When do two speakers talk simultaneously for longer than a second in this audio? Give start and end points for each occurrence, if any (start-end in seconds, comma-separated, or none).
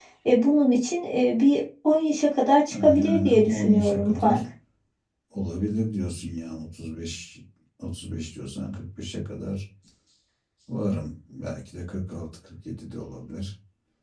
2.8-4.4